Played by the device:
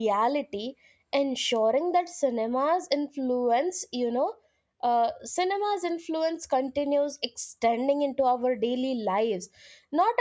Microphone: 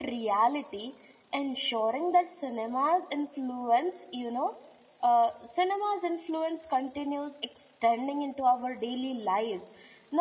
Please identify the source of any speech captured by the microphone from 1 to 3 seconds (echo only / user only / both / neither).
echo only